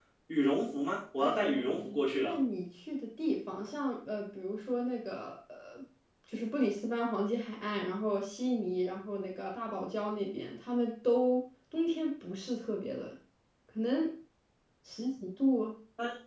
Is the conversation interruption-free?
No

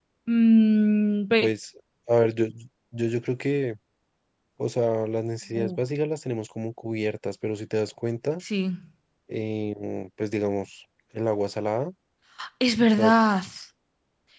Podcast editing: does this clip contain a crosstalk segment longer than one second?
No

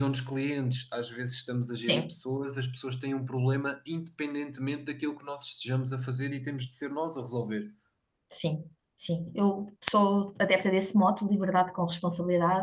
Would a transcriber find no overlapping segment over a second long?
Yes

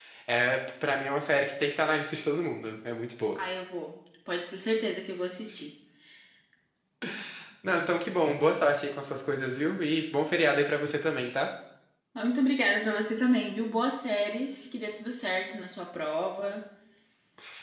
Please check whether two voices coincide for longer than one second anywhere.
No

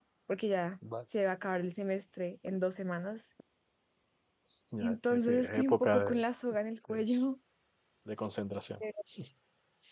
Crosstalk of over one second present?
Yes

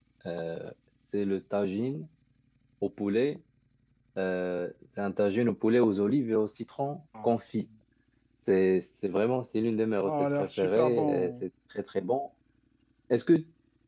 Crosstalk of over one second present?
Yes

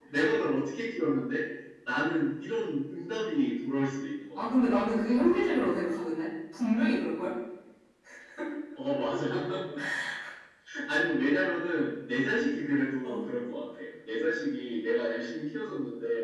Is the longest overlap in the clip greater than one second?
No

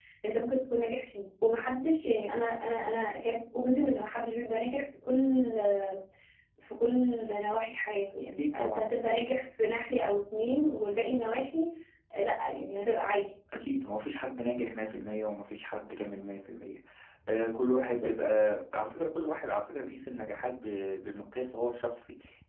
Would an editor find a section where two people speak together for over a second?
No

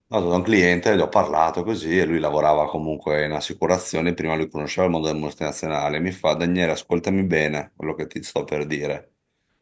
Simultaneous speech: No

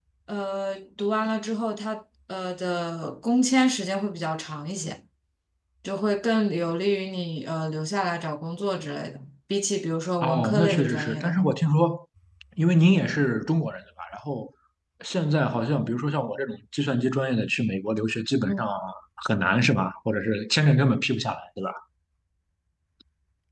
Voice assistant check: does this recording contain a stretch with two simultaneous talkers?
Yes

